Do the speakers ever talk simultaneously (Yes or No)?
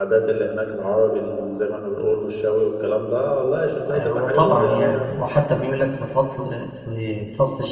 Yes